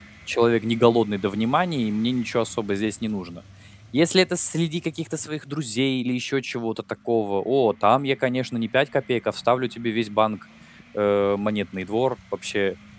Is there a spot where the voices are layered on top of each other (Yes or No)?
No